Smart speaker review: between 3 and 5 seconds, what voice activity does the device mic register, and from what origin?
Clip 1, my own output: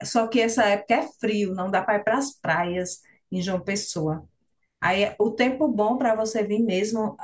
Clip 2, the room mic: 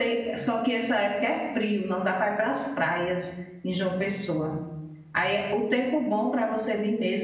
echo only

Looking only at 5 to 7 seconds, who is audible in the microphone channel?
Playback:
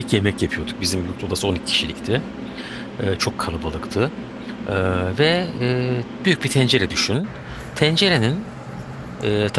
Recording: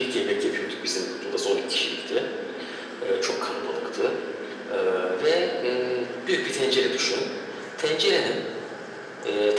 echo only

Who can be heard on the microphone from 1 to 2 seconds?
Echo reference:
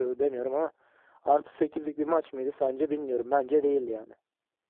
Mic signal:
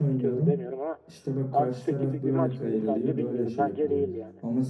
both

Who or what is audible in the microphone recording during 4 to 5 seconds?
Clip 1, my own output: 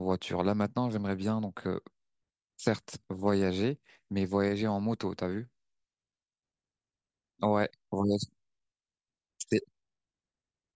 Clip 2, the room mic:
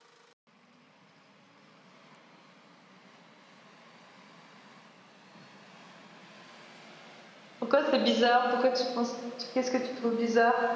neither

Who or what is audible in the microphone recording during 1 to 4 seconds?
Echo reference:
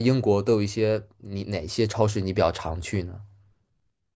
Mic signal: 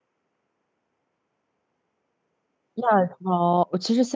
user only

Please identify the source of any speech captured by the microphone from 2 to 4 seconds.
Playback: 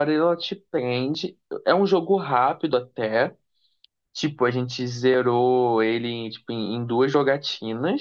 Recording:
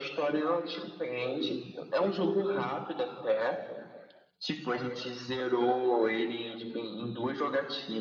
echo only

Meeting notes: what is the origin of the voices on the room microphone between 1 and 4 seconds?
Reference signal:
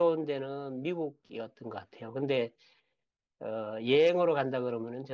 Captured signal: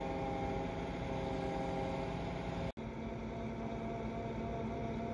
neither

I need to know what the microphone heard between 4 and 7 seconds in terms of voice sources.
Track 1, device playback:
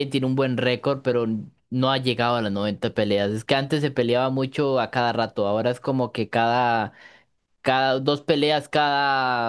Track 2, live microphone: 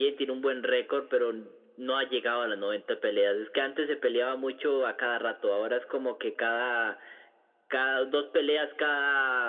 echo only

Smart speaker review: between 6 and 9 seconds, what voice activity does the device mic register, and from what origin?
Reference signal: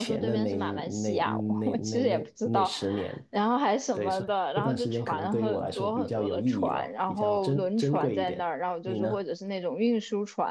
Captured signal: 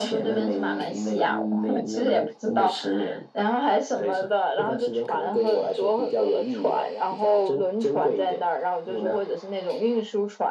echo only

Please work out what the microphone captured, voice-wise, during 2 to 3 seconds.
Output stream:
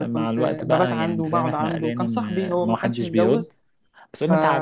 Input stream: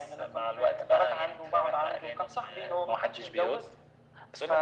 echo only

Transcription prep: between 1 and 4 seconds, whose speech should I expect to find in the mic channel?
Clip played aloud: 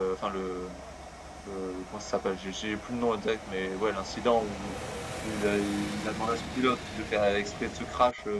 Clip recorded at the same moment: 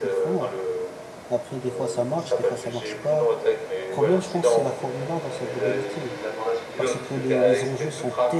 both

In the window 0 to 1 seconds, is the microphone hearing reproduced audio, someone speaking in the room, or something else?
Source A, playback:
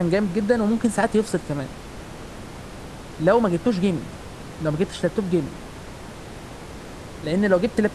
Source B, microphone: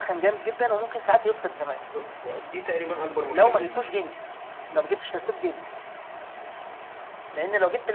echo only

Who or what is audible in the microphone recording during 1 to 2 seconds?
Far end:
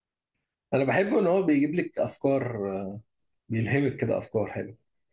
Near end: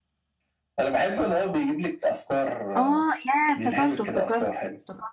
echo only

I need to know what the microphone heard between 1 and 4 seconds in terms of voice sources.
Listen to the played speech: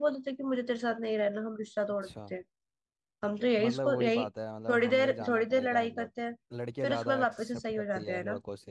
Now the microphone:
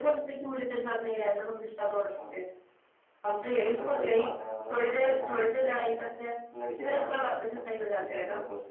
echo only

